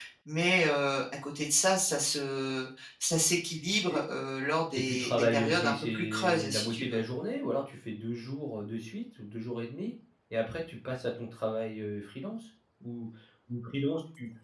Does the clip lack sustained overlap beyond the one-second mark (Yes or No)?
No